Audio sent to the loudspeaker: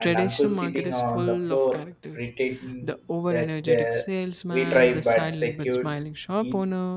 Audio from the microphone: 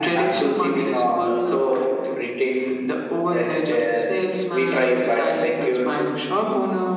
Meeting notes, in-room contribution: none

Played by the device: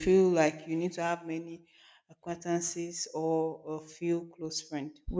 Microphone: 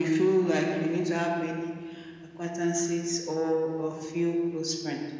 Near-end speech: none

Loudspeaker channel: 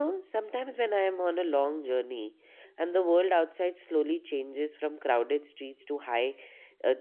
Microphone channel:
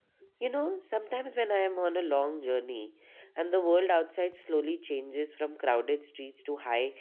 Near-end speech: none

